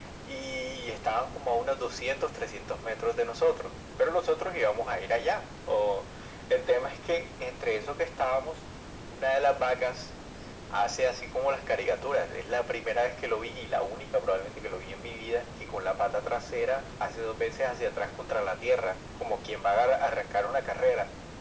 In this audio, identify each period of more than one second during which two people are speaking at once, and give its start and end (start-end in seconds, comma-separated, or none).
none